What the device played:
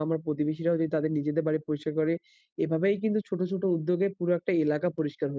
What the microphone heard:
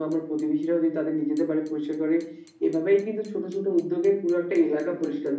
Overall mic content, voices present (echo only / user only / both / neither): echo only